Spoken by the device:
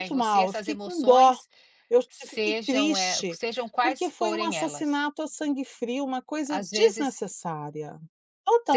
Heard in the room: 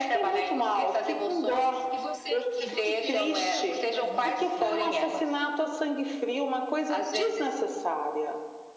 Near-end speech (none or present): present